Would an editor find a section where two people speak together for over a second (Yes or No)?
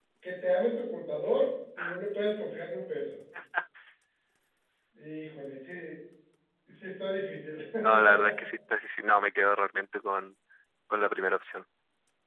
No